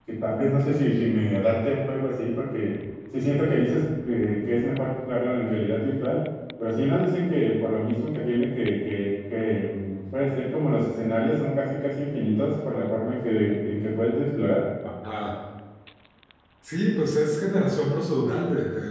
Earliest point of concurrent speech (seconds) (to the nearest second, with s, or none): none